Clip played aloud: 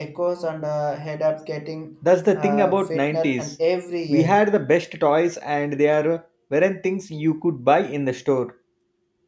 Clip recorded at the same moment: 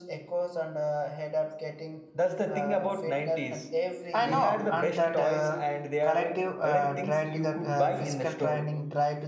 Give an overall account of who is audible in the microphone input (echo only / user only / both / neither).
both